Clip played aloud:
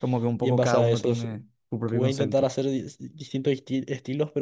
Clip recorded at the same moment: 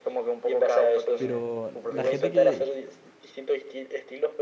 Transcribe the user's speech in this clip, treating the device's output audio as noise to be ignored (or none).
pero la gente que,